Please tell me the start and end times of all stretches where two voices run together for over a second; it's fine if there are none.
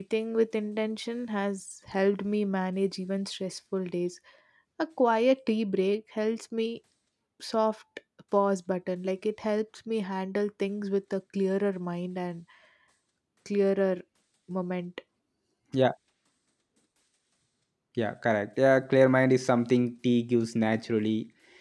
none

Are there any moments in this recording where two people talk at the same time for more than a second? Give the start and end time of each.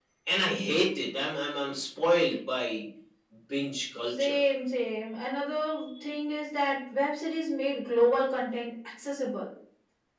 none

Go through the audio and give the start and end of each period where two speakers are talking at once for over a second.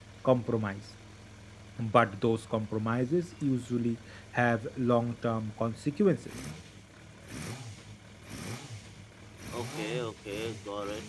none

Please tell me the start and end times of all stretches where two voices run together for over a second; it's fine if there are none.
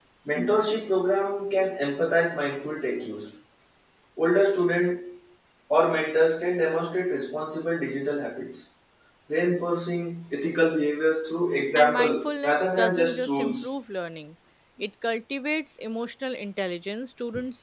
11.8-13.7

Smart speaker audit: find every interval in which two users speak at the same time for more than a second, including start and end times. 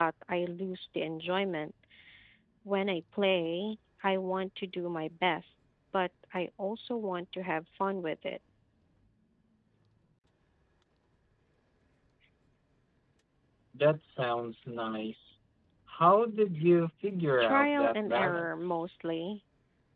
17.4-18.8

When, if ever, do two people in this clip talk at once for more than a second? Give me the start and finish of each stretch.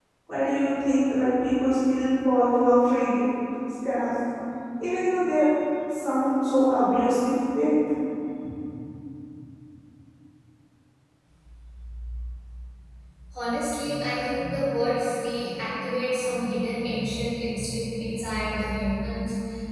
none

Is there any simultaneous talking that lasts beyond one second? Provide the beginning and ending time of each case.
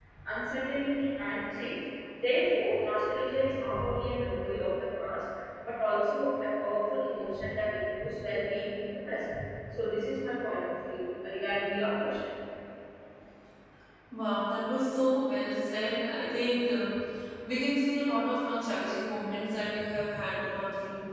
none

